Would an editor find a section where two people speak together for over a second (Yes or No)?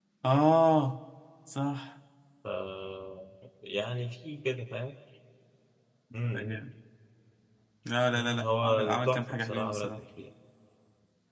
Yes